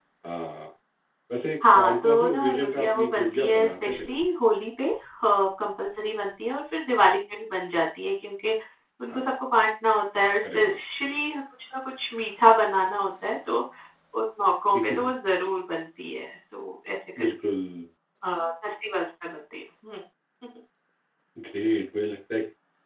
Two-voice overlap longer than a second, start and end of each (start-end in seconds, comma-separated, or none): 1.7-4.2